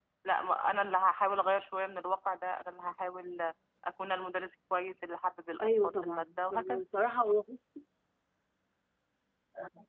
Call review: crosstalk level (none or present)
present